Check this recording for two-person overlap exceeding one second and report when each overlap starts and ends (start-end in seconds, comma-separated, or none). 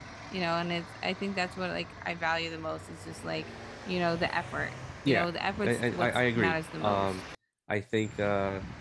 5.6-7.2